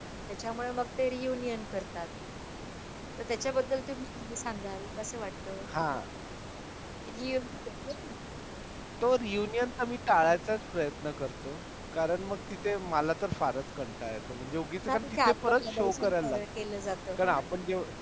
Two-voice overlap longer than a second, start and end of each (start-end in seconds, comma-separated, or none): 14.8-16.4